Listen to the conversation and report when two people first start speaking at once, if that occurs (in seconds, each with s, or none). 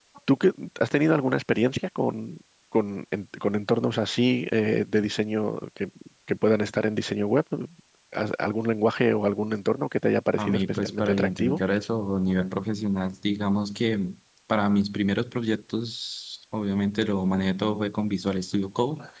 10.4 s